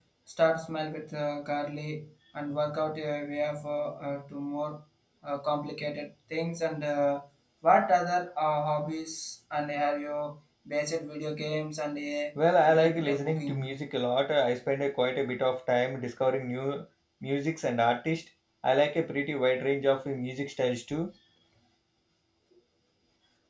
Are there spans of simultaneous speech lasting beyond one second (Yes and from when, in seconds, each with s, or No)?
Yes, from 12.4 s